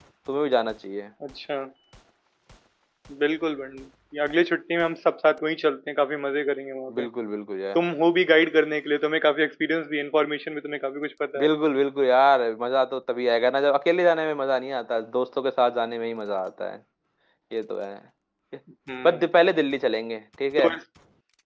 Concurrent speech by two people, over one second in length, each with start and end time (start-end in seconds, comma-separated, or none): none